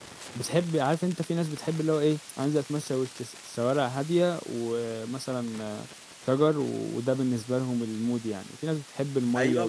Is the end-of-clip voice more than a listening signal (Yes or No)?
Yes